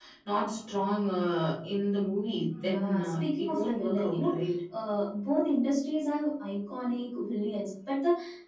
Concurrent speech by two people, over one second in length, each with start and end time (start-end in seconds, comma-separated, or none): 2.6-4.4